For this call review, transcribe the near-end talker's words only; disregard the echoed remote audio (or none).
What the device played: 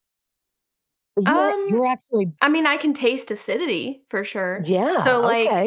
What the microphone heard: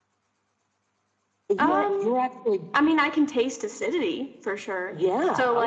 none